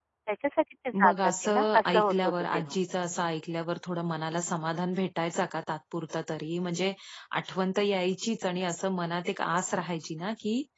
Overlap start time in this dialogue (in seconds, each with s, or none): 1.0 s